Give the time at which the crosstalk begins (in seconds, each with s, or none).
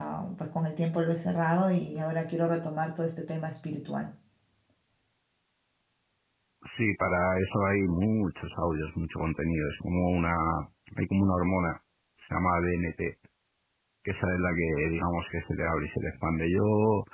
none